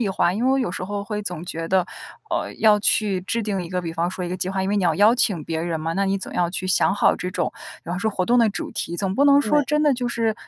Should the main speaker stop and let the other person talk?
No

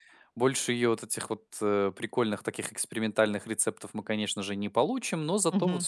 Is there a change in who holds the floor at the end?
No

